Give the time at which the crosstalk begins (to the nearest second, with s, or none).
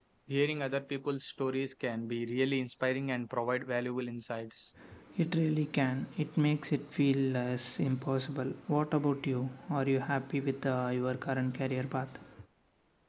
none